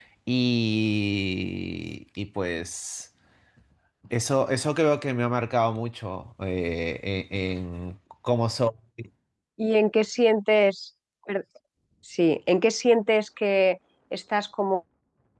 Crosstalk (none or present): none